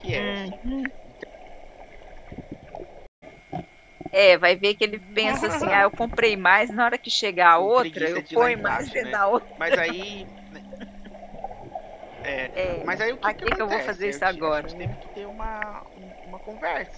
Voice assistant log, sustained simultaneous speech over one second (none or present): present